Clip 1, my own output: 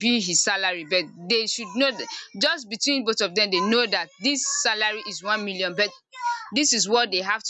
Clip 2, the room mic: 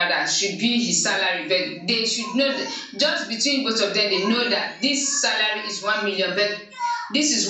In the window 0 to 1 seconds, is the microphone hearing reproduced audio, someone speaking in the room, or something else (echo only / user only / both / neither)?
echo only